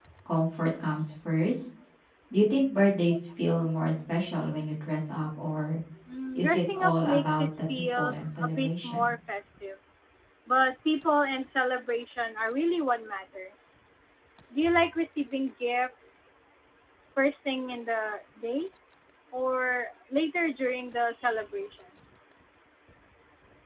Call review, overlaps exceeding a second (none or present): present